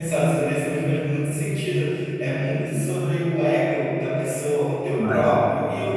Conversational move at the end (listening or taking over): listening